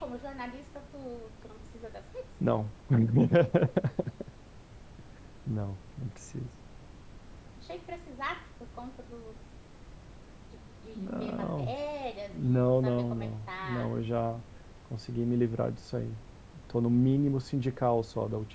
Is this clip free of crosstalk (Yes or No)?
No